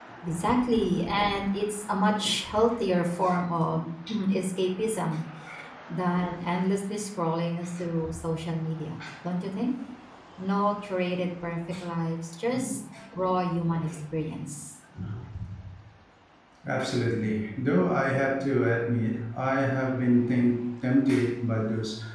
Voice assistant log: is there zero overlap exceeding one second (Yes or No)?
Yes